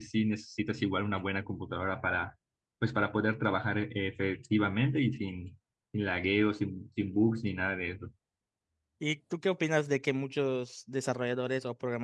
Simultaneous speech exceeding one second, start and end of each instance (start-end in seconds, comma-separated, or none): none